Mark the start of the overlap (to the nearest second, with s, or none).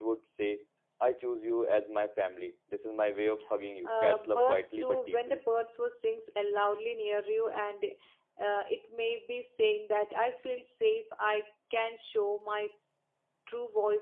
4 s